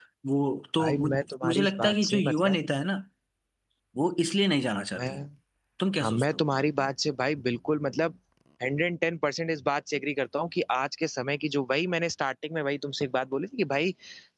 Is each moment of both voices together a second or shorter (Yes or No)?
No